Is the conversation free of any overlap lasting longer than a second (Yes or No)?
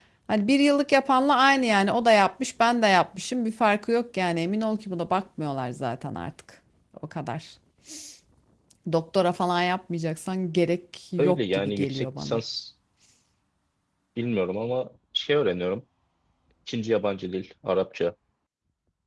No